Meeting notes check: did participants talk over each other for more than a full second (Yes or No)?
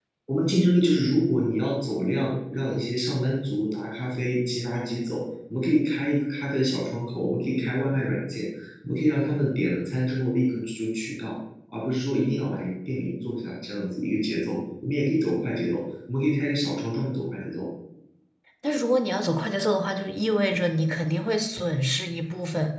No